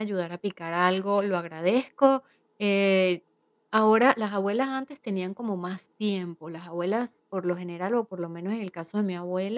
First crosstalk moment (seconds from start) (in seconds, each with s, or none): none